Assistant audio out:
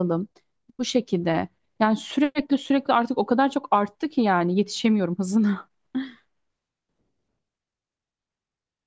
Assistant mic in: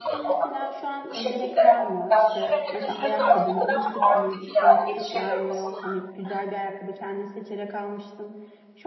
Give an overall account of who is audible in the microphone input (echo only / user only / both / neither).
both